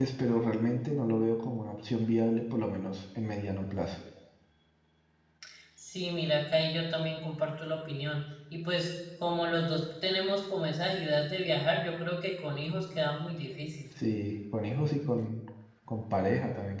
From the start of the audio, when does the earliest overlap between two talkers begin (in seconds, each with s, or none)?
none